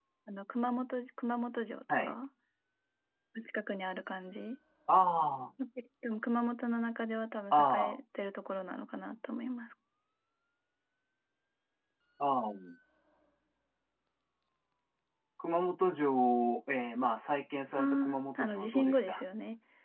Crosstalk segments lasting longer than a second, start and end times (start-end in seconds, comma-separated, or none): 17.8-19.2